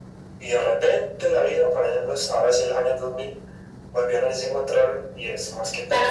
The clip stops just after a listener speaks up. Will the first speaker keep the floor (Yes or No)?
No